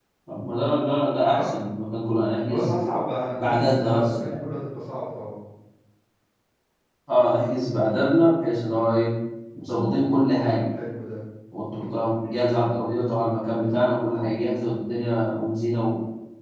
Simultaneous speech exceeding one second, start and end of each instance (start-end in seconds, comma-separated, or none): 3.3-4.5